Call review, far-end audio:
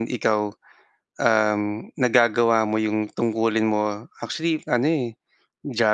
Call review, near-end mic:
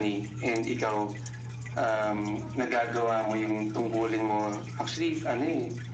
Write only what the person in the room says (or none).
none